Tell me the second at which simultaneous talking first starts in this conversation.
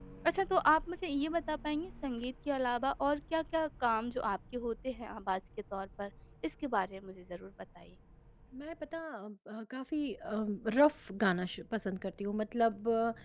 none

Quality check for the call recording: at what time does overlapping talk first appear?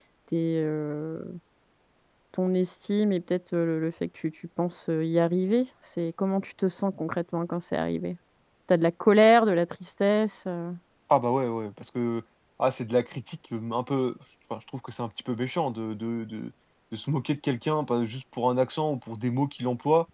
none

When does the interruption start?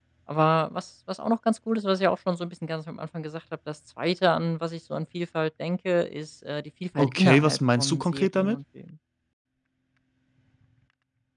7.0 s

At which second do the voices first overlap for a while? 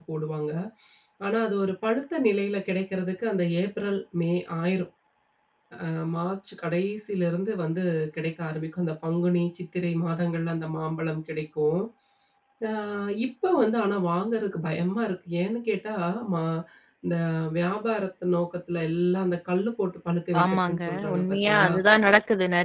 20.3 s

